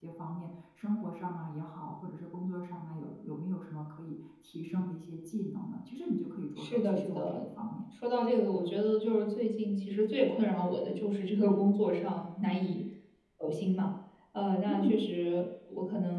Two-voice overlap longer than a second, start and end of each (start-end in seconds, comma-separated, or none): 6.6-7.8